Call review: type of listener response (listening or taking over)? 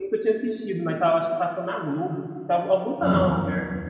listening